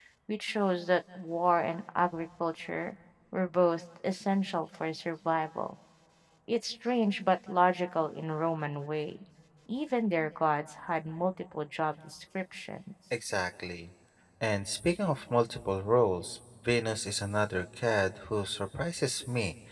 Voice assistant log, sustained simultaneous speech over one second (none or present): none